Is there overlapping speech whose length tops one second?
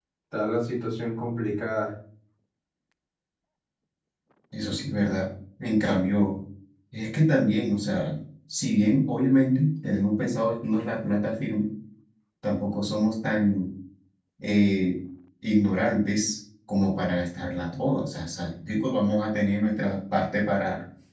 No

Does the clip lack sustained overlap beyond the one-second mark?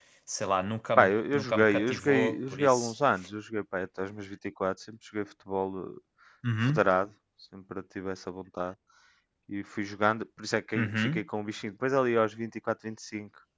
No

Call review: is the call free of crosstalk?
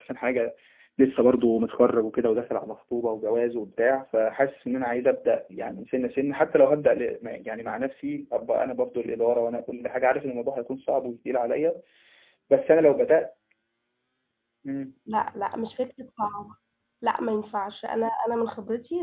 Yes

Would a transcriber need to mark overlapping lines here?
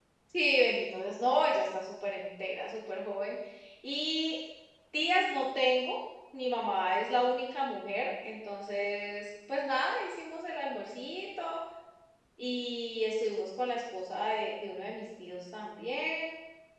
No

